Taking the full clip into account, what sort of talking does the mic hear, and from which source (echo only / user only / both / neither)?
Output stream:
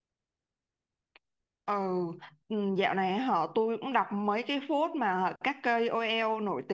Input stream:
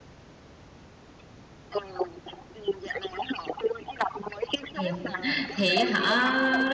both